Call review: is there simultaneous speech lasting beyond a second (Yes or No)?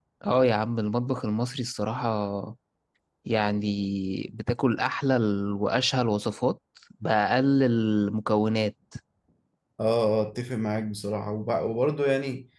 No